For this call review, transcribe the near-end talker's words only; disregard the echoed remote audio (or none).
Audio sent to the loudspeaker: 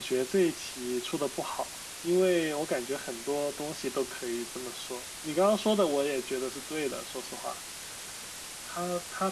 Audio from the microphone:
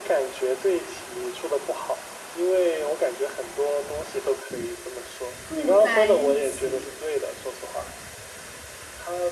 住在一起，